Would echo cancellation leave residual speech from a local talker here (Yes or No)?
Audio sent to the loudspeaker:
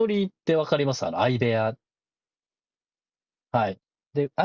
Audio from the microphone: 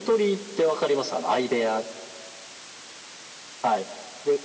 No